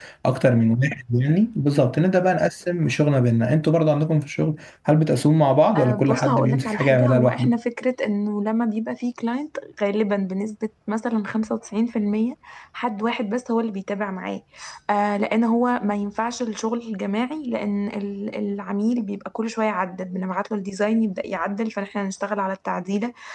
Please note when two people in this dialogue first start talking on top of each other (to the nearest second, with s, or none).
6 s